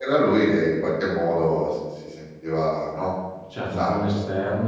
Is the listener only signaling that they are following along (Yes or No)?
No